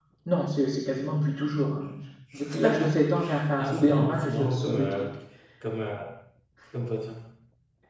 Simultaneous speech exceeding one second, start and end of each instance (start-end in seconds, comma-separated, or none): 3.6-5.0